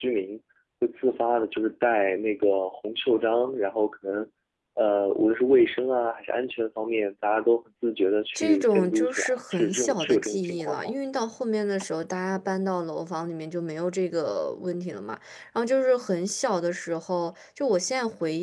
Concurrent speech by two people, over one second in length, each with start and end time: 8.3-10.9

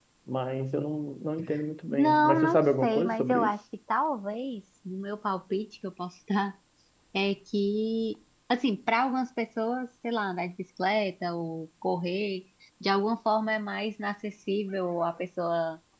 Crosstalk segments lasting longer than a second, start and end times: 1.9-3.5

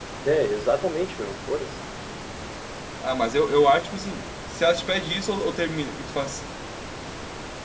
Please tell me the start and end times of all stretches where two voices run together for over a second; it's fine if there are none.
none

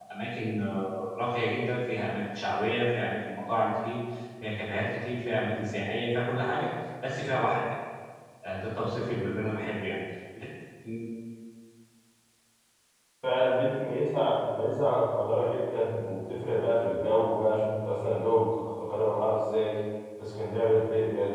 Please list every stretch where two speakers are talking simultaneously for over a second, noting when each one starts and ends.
none

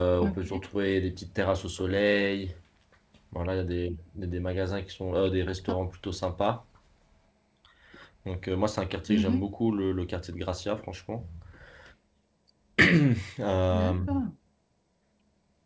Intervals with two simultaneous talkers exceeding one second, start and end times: none

